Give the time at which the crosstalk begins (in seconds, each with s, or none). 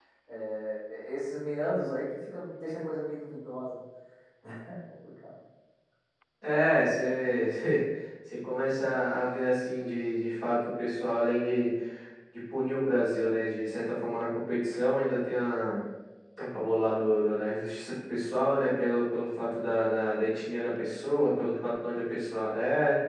none